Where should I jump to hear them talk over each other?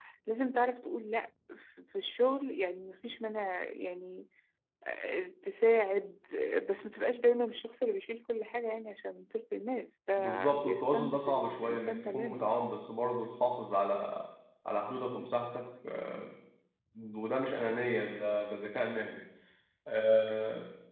10.2 s

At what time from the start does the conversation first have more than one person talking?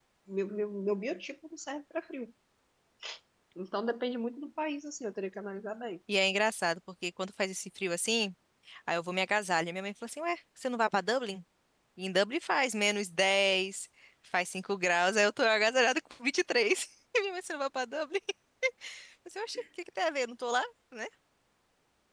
none

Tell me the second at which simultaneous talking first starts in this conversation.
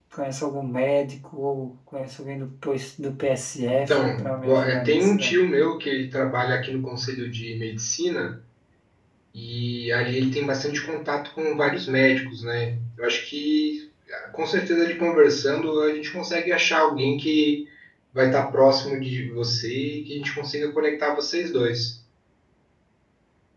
3.7 s

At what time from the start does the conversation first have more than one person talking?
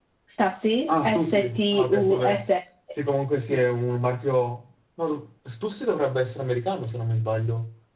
0.9 s

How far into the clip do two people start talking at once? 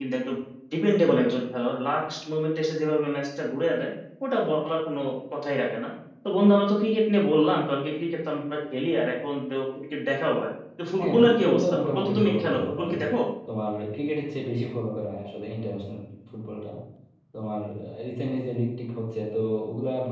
11.0 s

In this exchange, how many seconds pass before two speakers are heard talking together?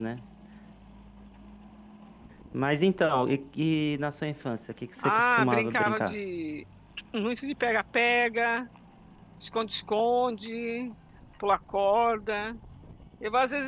5.0 s

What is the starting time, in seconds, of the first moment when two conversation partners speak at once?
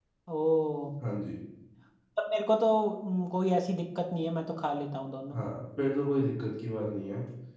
none

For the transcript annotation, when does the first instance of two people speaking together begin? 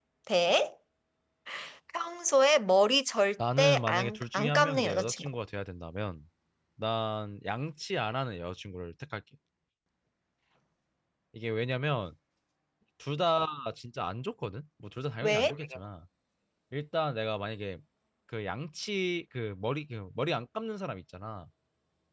3.6 s

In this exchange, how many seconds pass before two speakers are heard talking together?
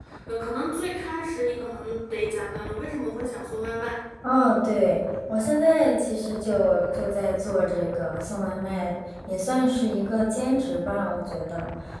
none

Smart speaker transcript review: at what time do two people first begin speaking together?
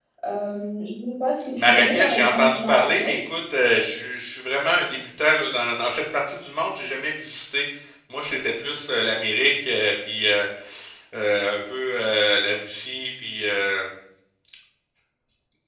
1.6 s

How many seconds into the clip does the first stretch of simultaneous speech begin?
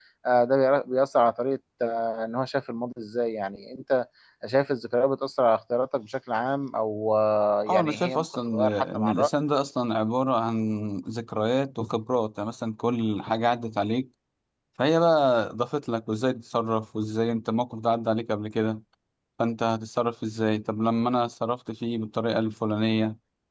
7.7 s

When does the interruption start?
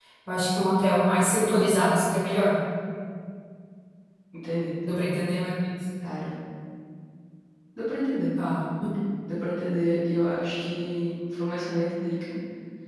none

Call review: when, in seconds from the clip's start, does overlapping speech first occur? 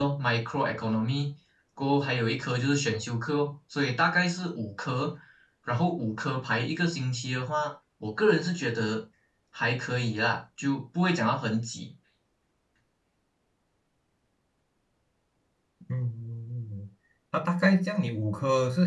none

